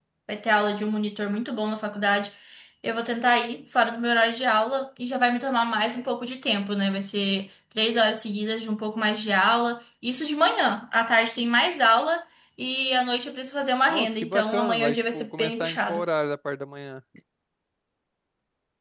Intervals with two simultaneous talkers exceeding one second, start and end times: 13.9-16.0

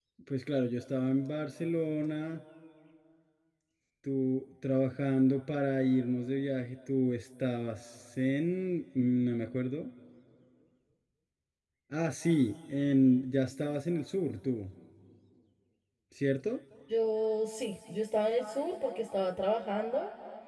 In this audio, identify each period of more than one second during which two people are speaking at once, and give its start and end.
none

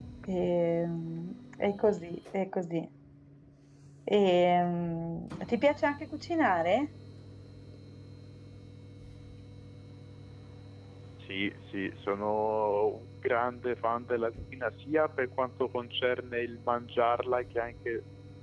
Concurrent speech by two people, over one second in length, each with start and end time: none

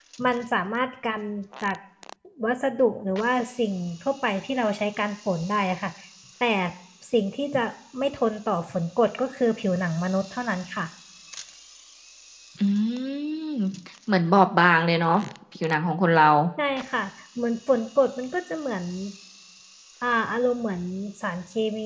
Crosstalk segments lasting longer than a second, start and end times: none

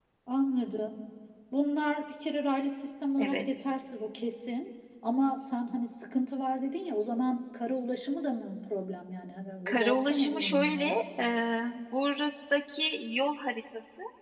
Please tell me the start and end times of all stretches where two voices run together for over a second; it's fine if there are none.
9.7-11.0

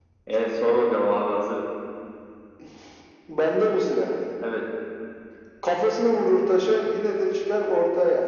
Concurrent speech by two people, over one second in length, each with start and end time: none

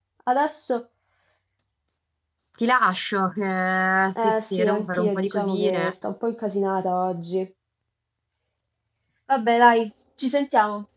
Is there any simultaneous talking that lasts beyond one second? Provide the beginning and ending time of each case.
4.2-5.9

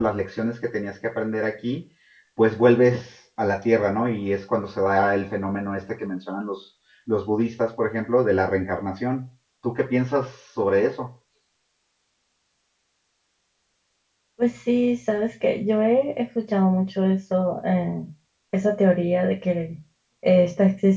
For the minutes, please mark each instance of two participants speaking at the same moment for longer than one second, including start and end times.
none

